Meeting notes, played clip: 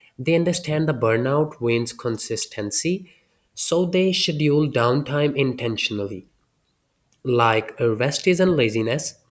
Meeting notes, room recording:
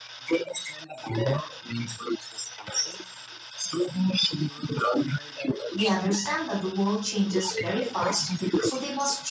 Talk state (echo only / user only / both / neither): both